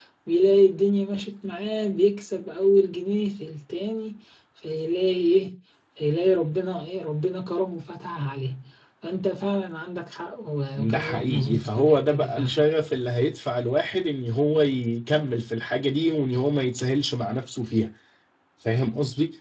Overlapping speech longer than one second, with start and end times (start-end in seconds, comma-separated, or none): 10.8-12.6